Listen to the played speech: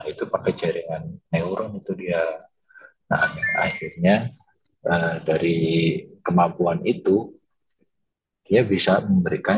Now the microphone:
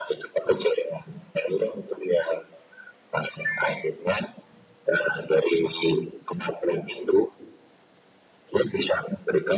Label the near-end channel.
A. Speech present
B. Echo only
B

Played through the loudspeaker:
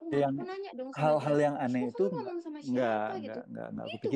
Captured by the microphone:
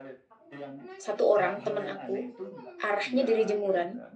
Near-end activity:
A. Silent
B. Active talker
B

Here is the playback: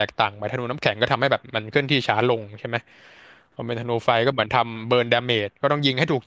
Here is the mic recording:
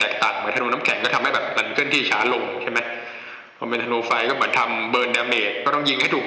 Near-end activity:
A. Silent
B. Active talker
A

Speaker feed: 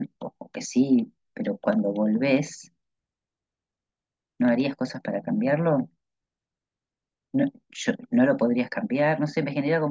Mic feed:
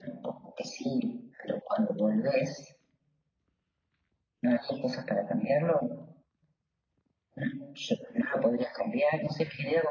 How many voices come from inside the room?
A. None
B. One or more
A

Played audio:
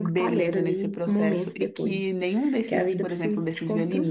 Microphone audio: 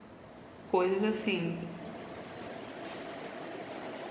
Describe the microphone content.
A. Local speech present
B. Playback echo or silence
A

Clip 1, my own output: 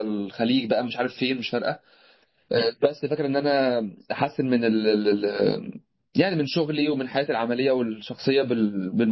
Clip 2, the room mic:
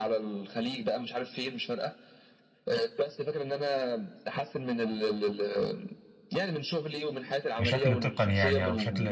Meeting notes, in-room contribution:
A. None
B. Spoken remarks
B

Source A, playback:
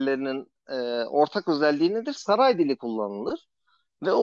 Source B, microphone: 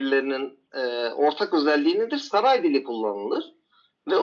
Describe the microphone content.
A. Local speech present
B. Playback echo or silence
B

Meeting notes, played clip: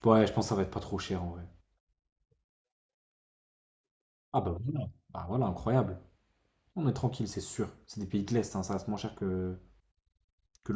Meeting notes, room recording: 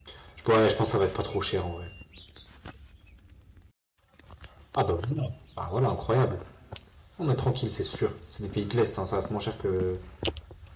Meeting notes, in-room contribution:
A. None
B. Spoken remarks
A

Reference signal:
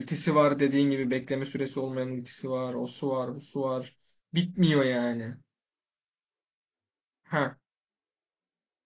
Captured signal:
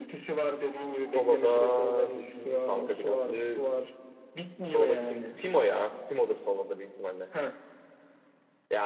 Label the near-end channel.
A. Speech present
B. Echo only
A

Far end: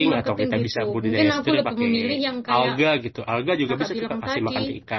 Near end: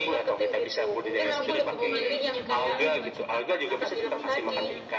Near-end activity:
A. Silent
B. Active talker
B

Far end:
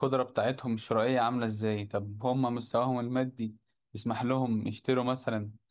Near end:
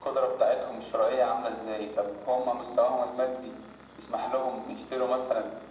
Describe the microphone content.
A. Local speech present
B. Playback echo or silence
B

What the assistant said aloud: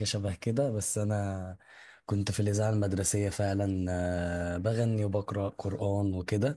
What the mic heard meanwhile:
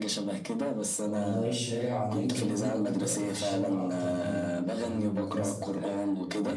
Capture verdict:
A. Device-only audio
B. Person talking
B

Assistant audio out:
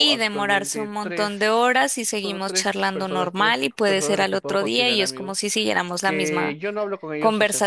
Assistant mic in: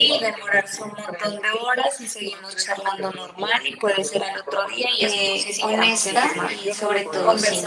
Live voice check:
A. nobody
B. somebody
B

